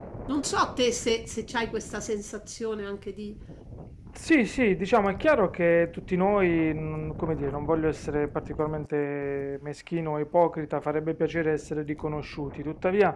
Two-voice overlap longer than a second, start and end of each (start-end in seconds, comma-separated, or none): none